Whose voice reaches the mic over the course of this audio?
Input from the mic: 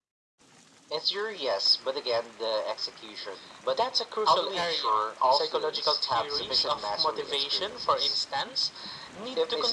echo only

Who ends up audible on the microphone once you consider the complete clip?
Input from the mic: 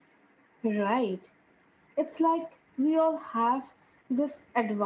echo only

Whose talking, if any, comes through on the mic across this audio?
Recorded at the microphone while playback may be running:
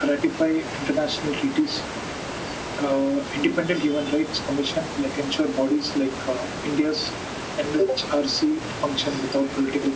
echo only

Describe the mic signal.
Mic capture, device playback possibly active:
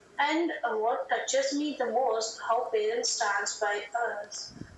echo only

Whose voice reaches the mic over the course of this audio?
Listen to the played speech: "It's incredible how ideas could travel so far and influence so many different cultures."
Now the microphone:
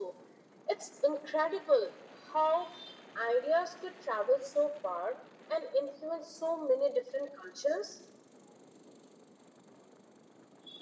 echo only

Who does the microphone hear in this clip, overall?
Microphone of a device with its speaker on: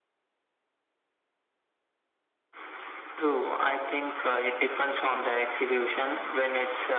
echo only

